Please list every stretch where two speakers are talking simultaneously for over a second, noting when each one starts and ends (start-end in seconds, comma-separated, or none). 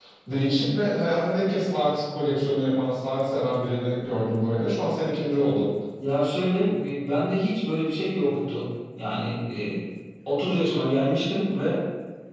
none